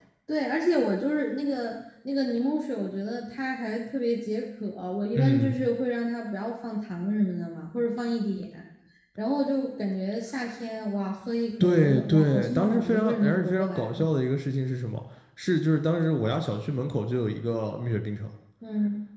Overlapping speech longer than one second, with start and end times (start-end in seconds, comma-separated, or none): 11.6-13.9